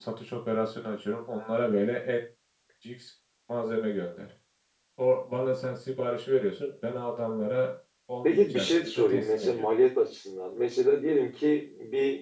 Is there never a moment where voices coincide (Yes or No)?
No